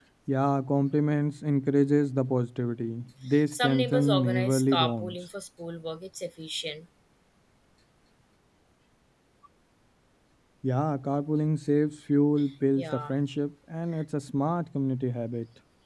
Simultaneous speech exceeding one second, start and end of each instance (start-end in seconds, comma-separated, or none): 3.5-5.2